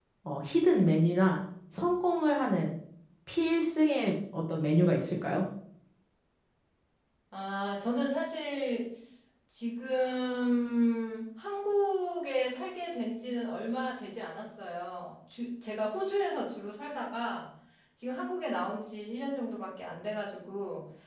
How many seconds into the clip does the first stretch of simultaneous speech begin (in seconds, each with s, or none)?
none